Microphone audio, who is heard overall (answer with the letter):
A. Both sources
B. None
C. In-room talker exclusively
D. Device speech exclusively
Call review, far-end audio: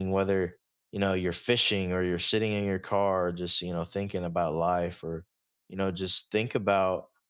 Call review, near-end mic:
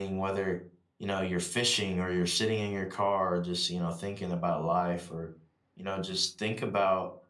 D